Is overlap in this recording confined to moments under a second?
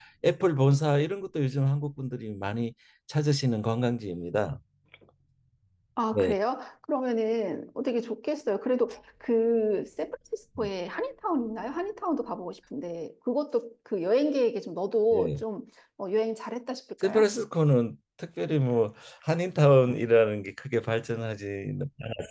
Yes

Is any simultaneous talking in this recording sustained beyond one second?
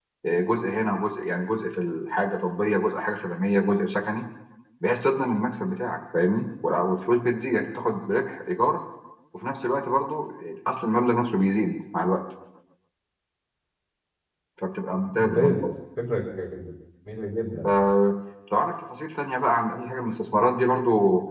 No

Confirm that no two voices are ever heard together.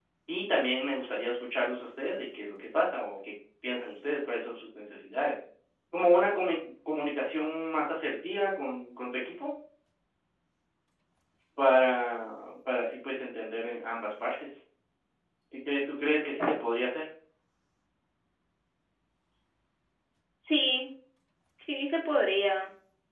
Yes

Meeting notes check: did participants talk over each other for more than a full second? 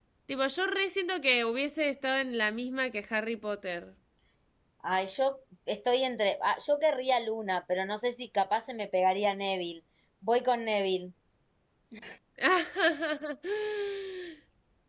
No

